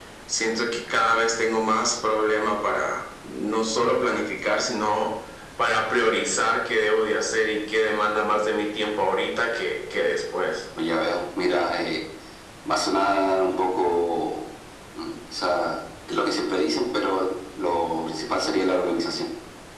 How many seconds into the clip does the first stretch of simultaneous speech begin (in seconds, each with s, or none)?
none